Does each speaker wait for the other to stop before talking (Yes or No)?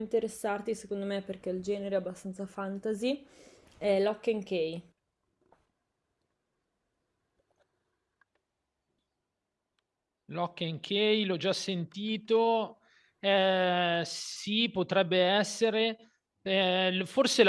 Yes